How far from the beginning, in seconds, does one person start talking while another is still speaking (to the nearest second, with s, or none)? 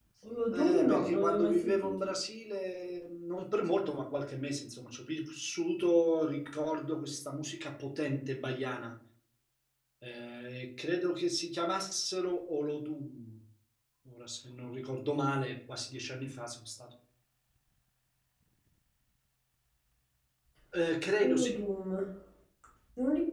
1 s